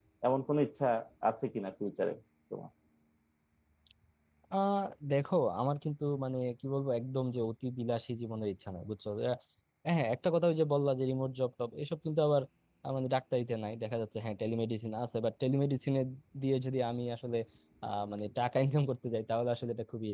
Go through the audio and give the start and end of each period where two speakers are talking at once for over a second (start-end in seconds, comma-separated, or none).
none